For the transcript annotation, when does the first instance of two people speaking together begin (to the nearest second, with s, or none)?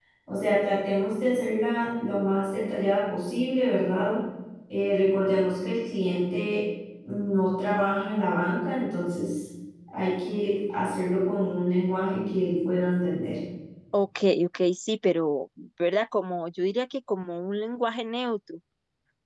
none